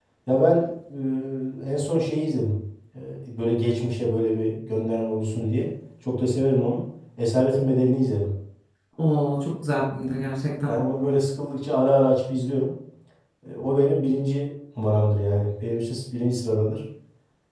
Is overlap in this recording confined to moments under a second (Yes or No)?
Yes